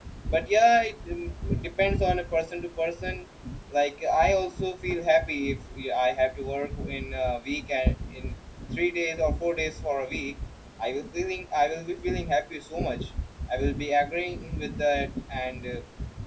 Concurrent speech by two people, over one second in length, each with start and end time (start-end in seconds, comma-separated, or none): none